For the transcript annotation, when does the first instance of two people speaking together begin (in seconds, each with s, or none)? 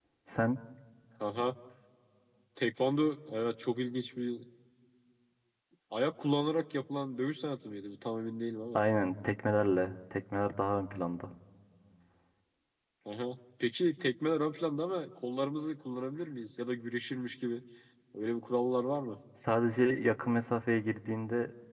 none